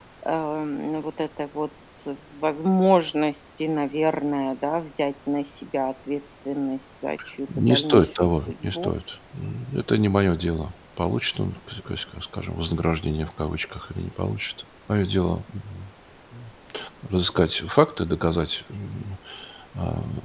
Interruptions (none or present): present